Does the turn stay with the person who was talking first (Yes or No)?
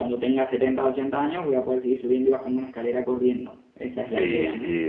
No